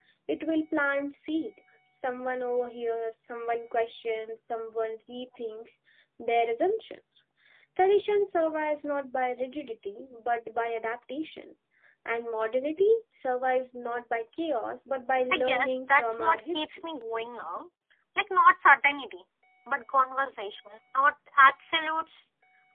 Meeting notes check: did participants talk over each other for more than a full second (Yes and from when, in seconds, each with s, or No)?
Yes, from 15.3 s